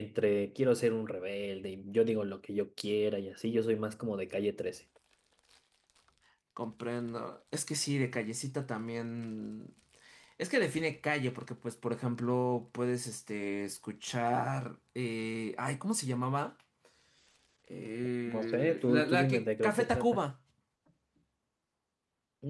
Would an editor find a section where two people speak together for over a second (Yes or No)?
Yes